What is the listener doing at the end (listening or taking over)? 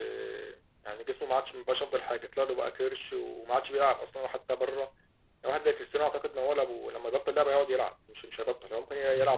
listening